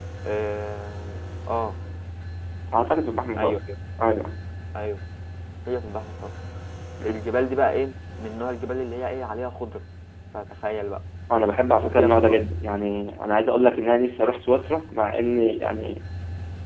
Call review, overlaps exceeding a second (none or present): none